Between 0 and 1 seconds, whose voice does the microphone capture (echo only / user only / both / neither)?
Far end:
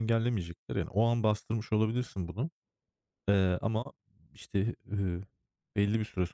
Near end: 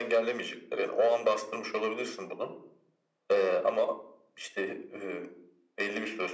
echo only